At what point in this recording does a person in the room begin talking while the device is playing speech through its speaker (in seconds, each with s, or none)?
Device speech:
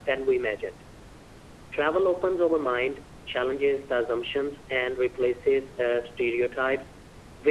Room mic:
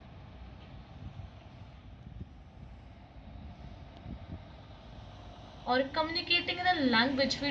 5.6 s